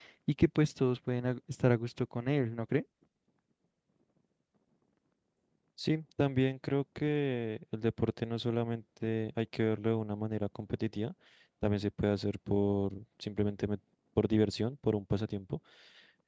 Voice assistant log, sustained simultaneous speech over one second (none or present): none